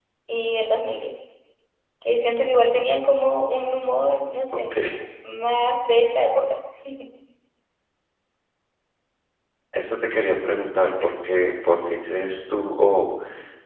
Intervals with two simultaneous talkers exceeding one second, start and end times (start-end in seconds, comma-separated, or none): none